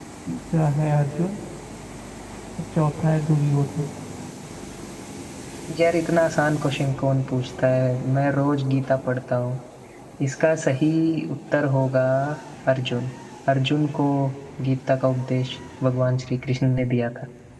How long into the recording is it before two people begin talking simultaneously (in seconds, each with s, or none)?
none